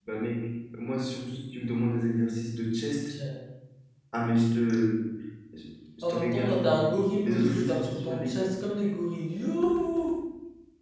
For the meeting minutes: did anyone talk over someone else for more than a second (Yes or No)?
Yes